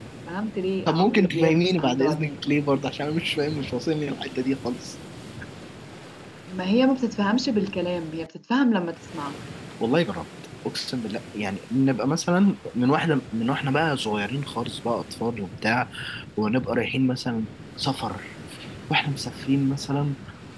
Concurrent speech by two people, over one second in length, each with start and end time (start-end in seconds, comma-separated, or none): 0.9-2.4